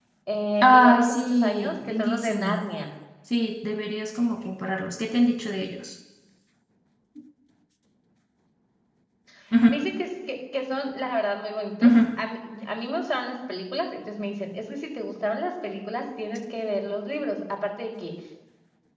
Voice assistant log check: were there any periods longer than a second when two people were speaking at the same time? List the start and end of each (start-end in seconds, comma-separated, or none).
0.6-2.6